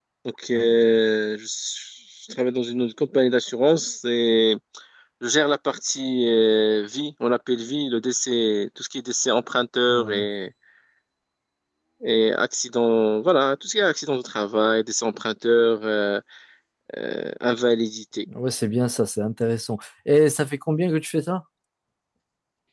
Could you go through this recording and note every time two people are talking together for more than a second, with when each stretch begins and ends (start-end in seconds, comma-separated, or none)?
none